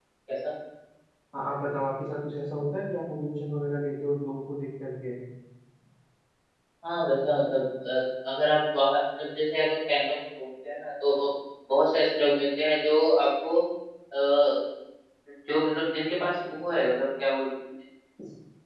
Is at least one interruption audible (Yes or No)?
No